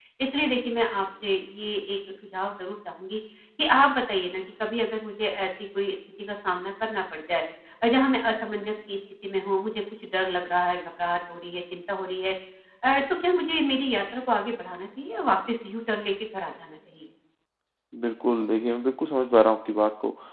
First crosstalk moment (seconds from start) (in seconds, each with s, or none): none